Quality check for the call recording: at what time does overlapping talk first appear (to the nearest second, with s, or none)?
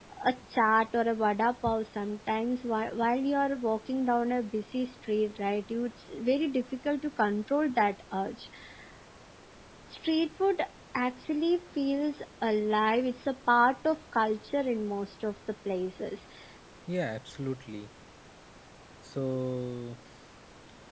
none